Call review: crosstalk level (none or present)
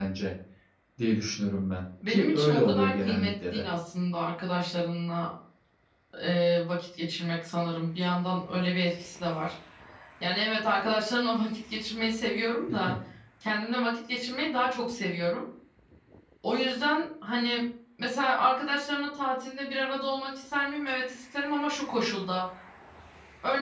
present